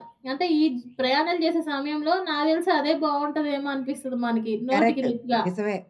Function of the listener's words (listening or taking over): taking over